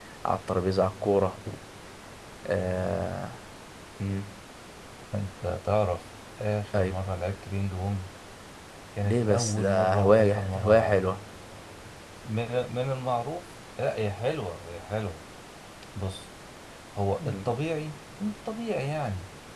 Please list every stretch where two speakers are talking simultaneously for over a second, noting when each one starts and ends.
9.0-11.0

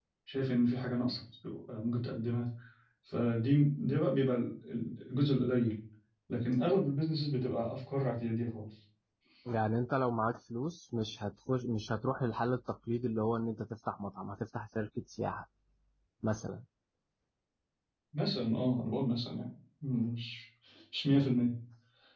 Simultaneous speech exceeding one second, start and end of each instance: none

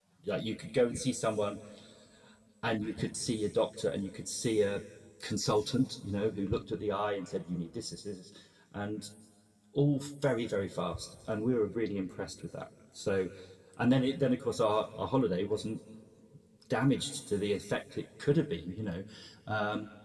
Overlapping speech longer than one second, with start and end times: none

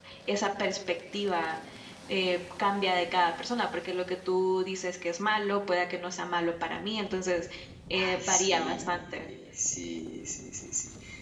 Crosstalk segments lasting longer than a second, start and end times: 7.9-9.3

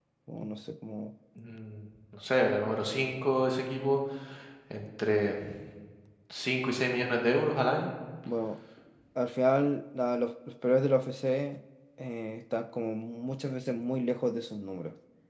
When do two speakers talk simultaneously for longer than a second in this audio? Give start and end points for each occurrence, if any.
none

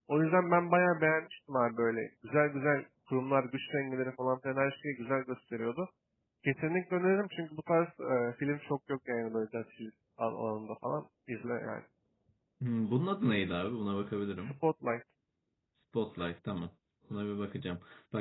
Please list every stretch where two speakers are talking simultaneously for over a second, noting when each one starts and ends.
none

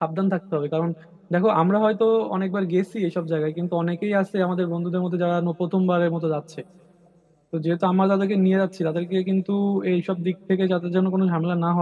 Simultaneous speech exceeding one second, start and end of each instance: none

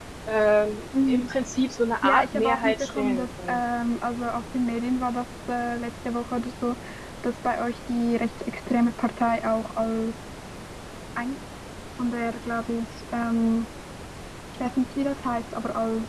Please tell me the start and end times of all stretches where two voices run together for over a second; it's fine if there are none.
2.0-3.6

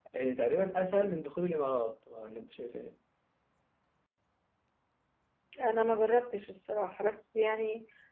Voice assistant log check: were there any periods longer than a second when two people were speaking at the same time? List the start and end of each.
none

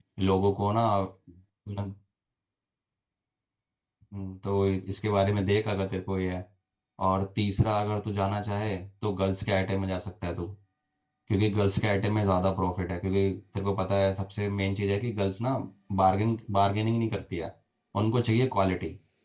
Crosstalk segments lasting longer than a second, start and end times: none

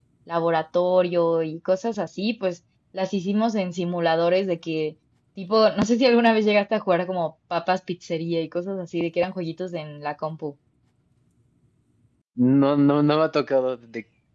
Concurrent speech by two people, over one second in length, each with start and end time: none

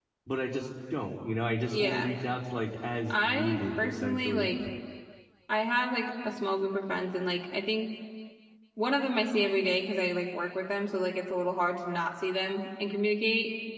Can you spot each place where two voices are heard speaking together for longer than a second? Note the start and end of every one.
3.1-4.5

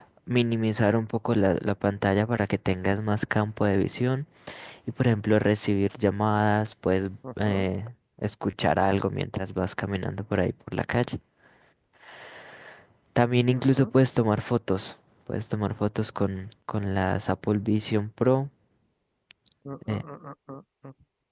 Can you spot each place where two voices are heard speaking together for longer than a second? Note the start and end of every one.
none

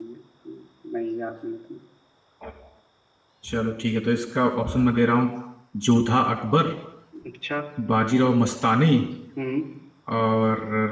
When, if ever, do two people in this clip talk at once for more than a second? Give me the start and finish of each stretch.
none

